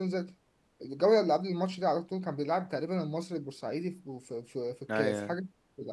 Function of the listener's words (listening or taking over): listening